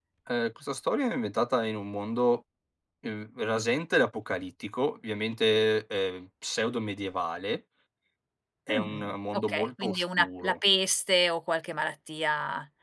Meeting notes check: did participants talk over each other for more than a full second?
Yes, from 8.7 s

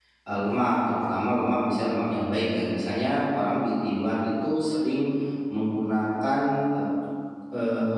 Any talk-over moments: No

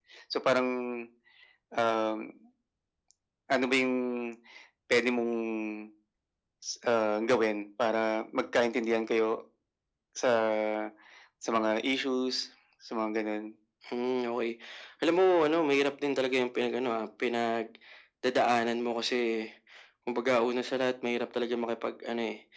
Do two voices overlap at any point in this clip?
No

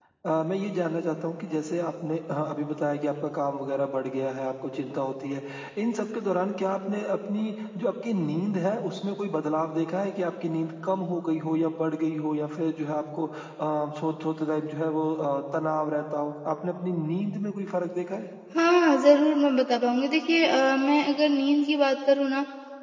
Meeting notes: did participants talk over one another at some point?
No

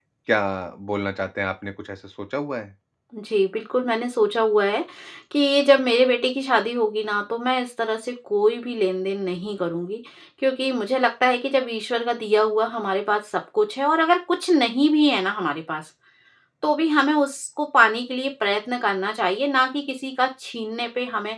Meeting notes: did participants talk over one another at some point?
No

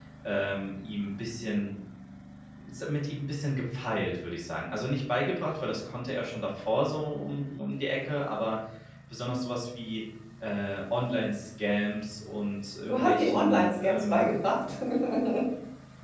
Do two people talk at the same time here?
Yes, from 12.9 s

